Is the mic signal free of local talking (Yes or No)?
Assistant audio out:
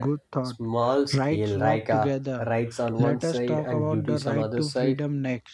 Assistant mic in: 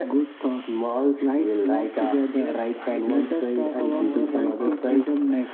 No